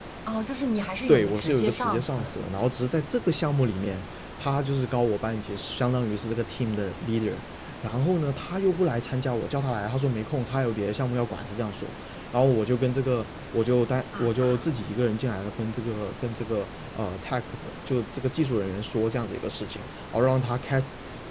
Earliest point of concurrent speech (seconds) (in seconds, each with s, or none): 1.1 s